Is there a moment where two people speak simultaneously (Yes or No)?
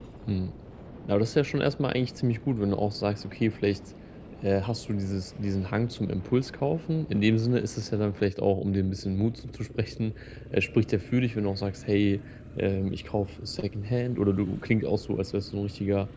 No